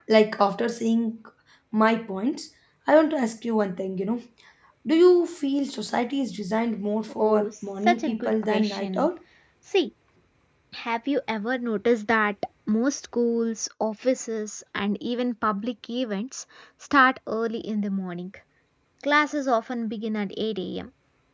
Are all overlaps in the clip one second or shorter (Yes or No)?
No